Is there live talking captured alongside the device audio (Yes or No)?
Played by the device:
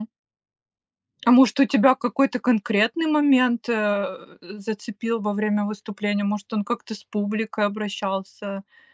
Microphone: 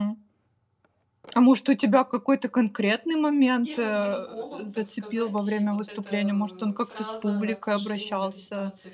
Yes